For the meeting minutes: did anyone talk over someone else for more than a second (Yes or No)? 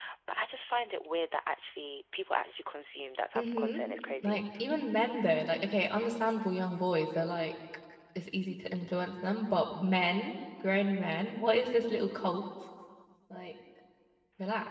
No